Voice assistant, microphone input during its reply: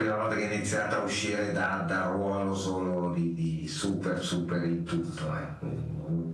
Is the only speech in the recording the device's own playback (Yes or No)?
Yes